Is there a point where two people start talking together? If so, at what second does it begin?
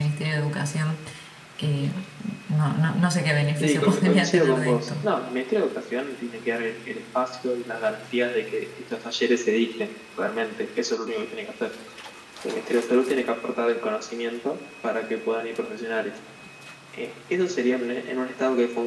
3.6 s

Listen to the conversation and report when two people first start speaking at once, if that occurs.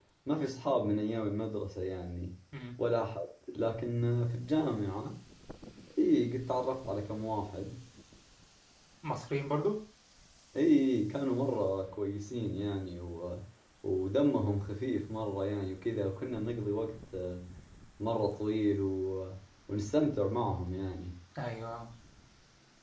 none

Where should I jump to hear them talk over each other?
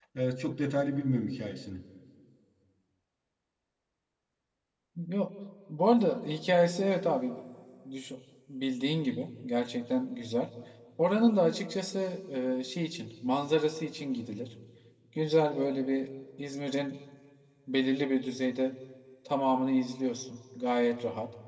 none

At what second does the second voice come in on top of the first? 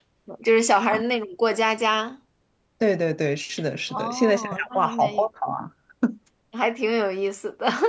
3.9 s

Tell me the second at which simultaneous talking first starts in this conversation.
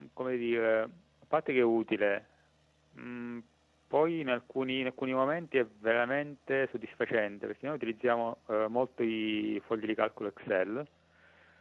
none

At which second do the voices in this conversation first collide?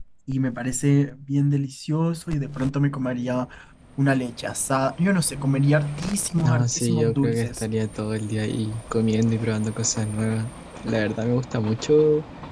6.4 s

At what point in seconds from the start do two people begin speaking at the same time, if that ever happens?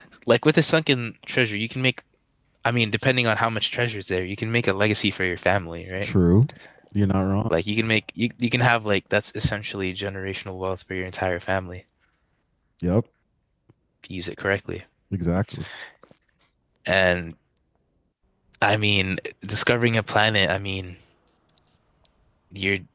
none

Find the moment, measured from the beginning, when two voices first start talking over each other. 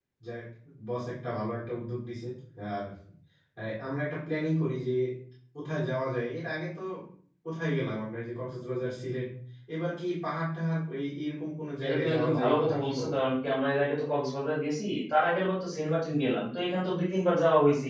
11.8 s

